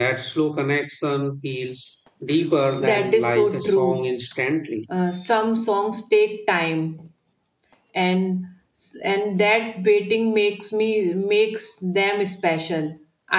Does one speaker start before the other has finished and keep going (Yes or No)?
Yes